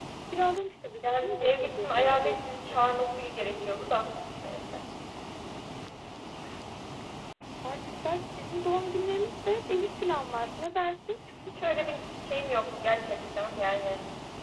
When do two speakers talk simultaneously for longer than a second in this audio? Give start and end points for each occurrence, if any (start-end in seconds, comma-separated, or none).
1.0-2.8